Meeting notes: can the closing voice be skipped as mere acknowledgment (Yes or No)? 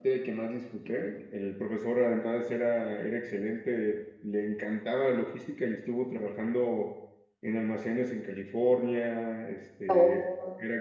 Yes